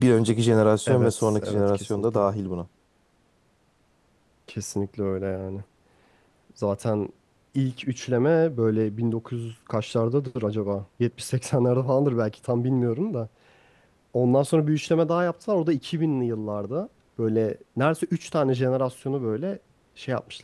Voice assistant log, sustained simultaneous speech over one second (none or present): present